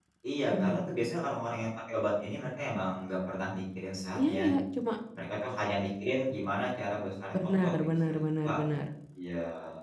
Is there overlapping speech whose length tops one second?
Yes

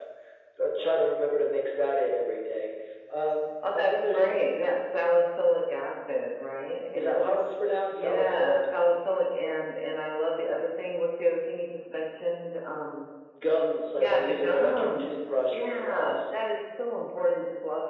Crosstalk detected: Yes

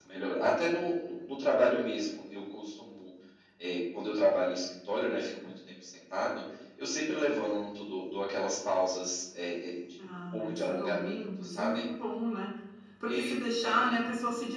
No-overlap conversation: No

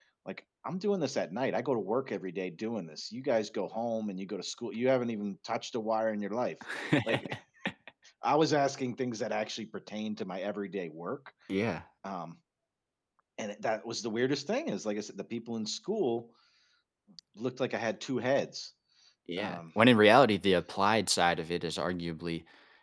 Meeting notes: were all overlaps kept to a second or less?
Yes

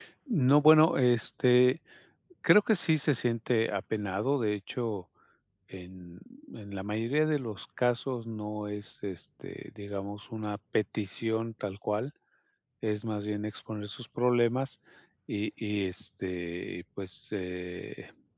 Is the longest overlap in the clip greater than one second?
No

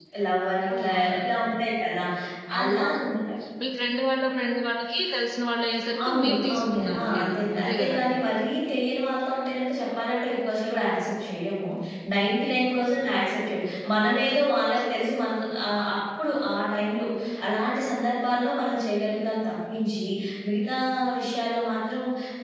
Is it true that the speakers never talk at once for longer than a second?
No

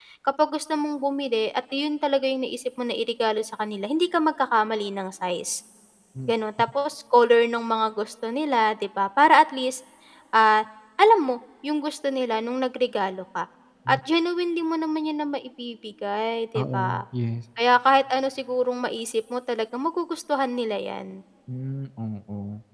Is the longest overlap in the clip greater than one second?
No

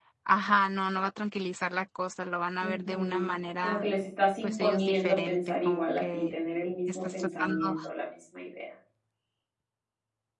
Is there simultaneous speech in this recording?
Yes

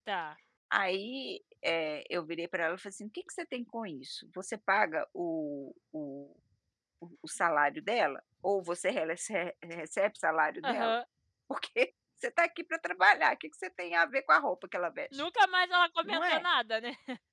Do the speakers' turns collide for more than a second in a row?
No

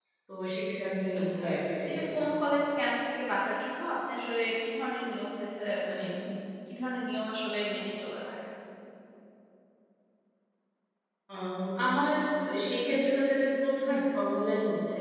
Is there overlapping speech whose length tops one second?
No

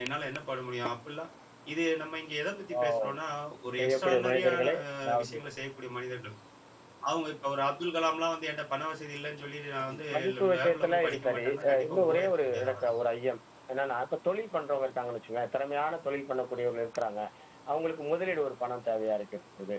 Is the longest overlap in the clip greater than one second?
Yes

